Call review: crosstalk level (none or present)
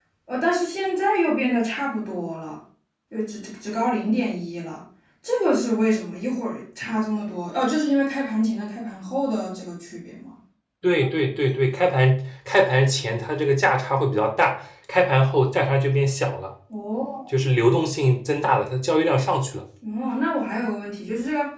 none